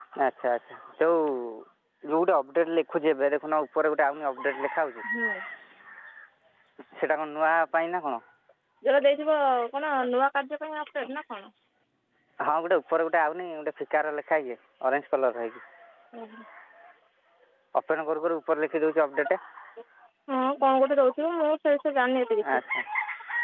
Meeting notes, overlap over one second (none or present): none